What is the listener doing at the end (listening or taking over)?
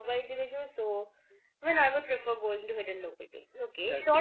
listening